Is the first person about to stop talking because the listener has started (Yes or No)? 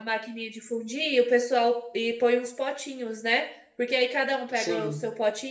No